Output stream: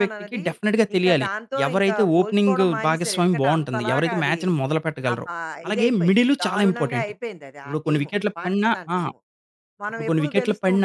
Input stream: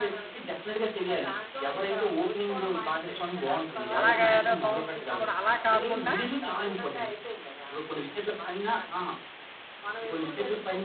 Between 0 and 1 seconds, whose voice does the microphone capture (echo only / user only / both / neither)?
echo only